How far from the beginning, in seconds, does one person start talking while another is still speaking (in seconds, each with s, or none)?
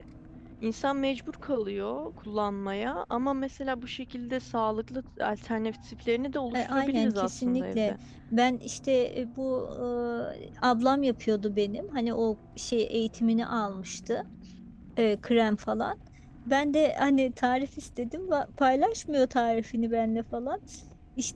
6.5 s